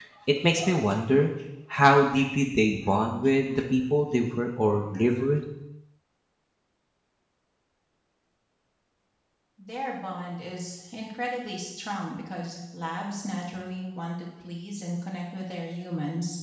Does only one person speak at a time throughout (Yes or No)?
Yes